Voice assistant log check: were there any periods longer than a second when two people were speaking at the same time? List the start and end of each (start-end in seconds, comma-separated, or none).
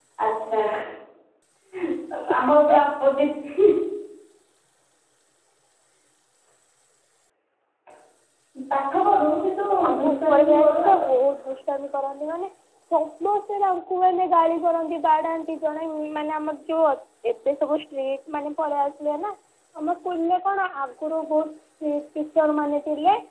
9.9-11.1